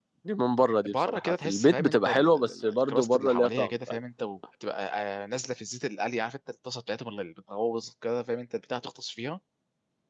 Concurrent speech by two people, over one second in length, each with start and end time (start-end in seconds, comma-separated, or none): 0.8-4.0